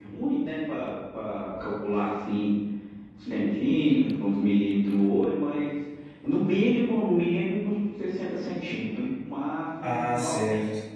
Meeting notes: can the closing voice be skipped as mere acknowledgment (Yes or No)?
No